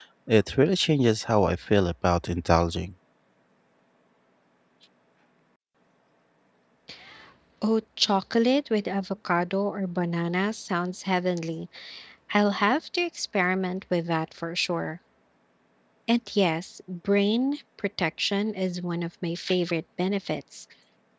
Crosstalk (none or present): none